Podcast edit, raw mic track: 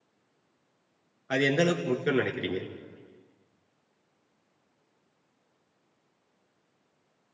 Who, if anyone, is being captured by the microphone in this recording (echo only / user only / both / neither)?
user only